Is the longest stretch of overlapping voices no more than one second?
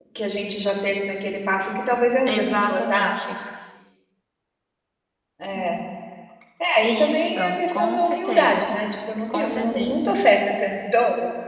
No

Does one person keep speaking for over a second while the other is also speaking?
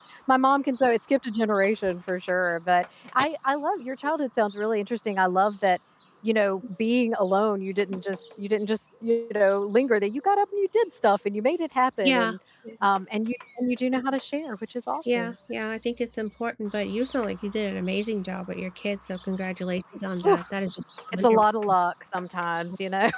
No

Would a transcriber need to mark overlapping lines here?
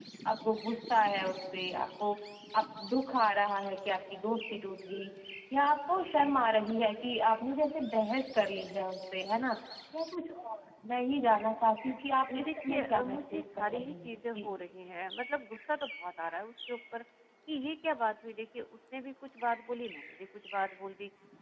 Yes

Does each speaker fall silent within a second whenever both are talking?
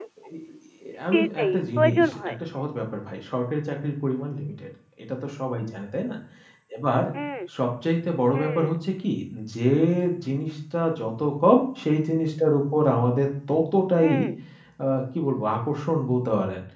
No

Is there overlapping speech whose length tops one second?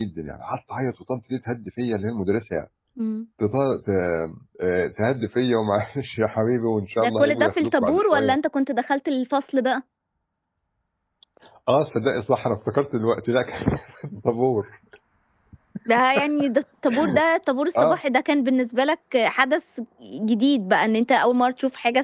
Yes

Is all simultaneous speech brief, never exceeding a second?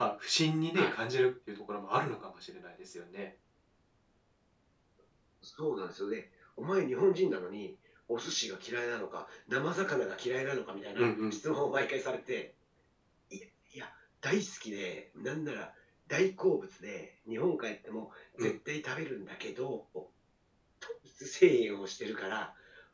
Yes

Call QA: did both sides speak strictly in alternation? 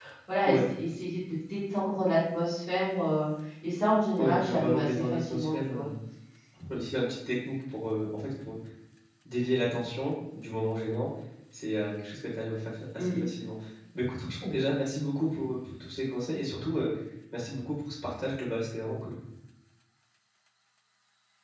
No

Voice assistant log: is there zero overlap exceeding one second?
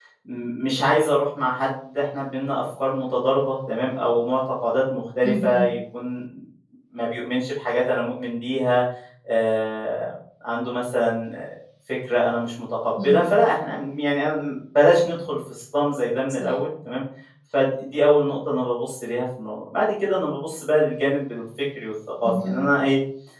Yes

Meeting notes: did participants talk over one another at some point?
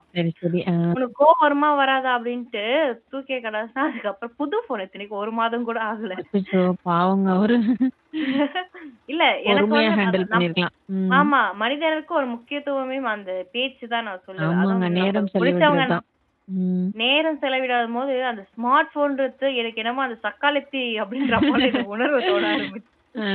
Yes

